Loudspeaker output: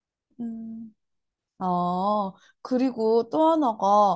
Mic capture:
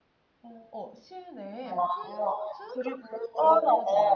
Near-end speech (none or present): present